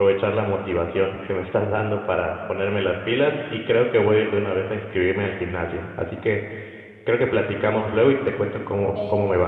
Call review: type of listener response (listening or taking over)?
taking over